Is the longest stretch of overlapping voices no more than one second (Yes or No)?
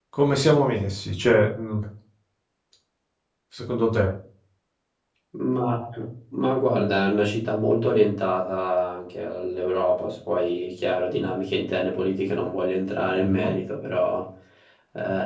Yes